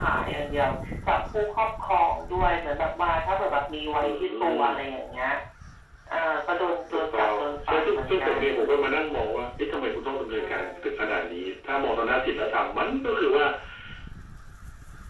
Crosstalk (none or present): present